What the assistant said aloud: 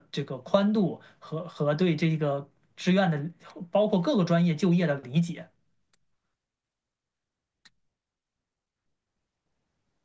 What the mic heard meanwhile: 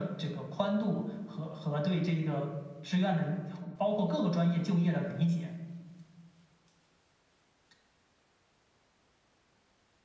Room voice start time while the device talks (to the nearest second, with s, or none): none